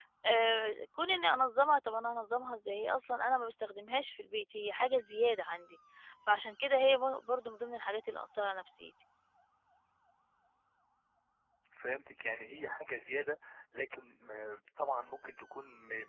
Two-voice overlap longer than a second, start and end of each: none

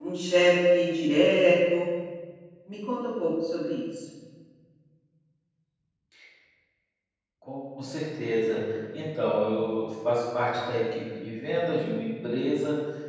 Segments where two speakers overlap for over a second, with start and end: none

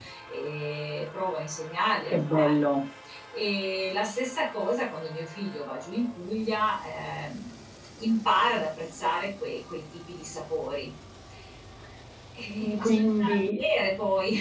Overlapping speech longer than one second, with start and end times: none

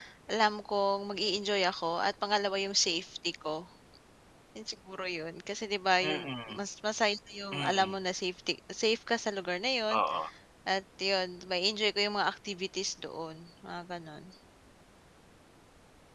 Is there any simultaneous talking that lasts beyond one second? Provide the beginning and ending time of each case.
none

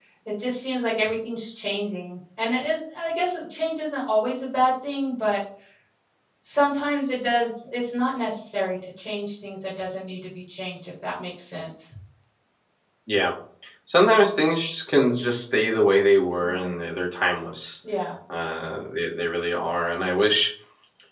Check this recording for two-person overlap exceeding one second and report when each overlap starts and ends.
none

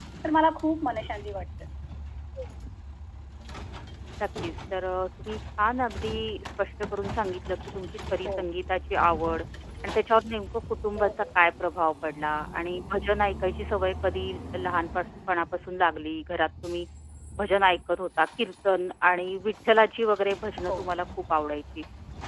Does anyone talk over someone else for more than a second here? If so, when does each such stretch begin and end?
none

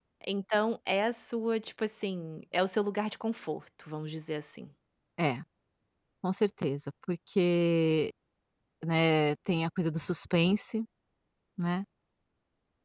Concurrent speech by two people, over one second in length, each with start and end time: none

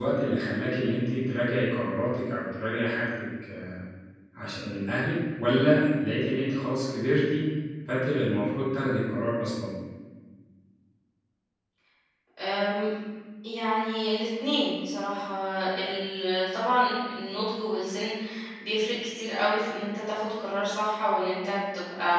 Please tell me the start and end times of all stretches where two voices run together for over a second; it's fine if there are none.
none

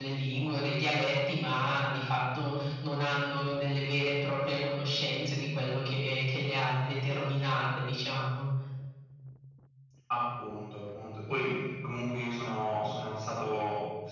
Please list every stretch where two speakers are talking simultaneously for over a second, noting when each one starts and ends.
none

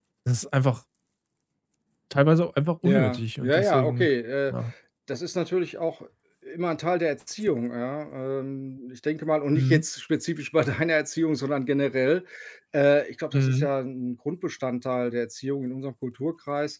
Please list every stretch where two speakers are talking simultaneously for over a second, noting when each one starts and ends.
2.8-4.1

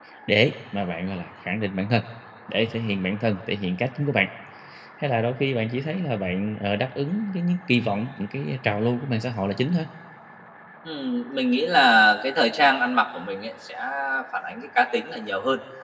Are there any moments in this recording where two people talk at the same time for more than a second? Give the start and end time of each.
none

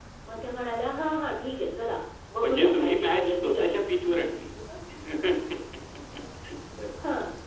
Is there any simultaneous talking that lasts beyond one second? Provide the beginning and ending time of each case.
2.4-3.9

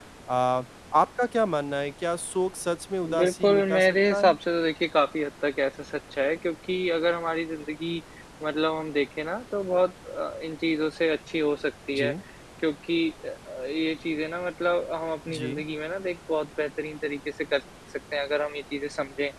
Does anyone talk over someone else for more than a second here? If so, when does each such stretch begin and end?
3.1-4.4

